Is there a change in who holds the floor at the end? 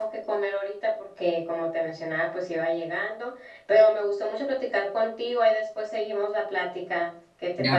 Yes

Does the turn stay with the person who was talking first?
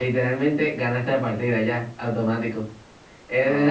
Yes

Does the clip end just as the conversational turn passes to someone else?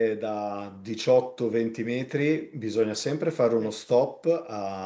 No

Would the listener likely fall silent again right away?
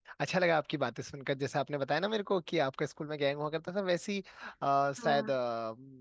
Yes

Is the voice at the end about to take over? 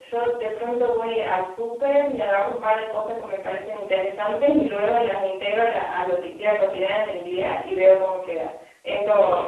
No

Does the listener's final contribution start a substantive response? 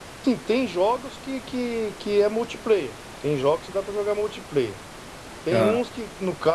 No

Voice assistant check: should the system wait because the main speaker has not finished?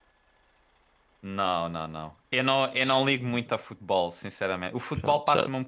Yes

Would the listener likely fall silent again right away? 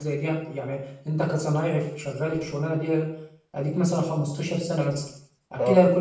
Yes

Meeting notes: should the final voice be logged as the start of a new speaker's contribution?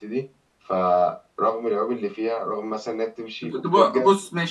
Yes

